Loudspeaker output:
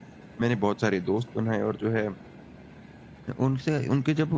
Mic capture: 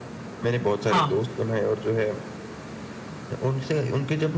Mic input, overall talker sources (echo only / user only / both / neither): both